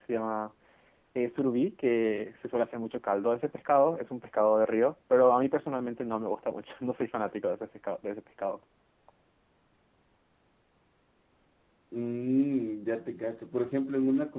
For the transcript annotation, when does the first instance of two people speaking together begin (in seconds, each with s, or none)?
none